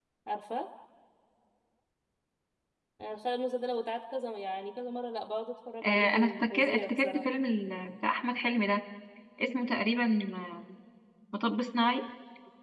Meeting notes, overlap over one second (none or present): present